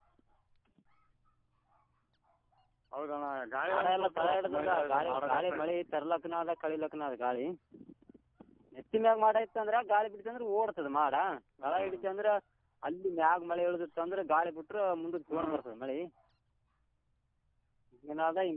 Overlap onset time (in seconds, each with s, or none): 3.6 s